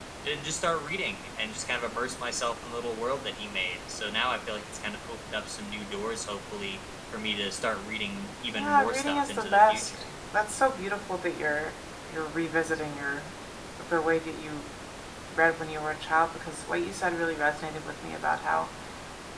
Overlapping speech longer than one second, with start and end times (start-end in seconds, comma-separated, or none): 8.5-9.9